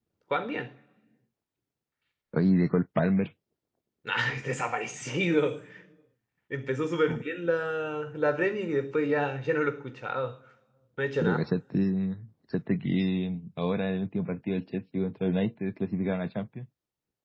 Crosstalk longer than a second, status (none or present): none